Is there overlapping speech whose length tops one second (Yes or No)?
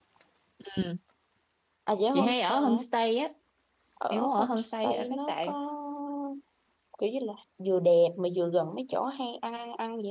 Yes